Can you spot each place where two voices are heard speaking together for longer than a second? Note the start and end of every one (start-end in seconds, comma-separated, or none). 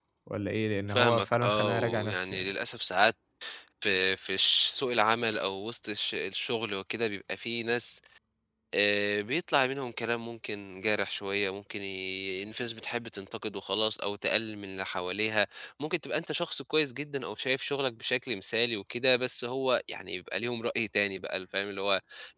0.9-2.5